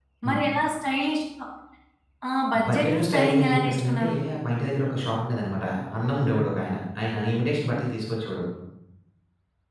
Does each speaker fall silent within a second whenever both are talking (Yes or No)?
No